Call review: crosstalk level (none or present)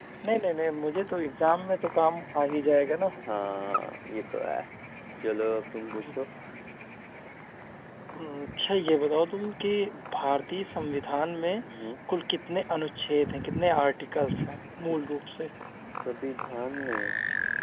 none